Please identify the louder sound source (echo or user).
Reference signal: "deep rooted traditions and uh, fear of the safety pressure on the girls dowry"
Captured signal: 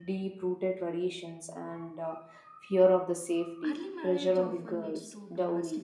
echo